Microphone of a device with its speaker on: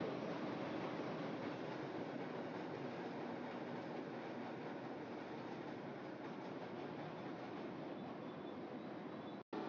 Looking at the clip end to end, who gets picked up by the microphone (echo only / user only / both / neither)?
neither